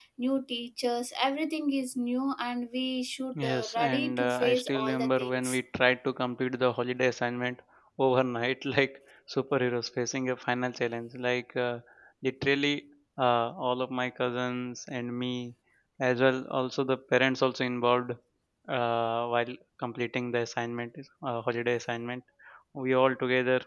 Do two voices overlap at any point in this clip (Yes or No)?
Yes